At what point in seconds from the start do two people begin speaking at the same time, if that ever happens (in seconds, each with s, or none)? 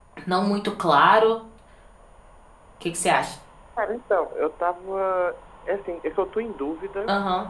none